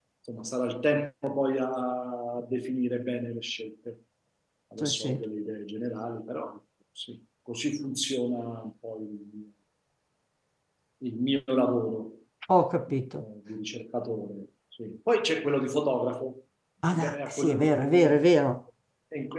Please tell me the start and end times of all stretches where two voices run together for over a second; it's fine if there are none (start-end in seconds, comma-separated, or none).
16.9-18.5